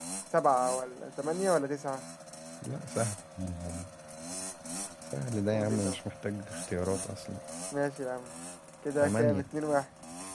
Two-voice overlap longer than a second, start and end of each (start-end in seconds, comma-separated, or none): none